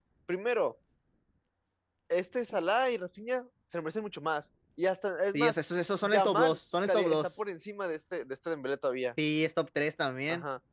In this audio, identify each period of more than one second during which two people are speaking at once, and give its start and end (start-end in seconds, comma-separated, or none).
6.0-7.3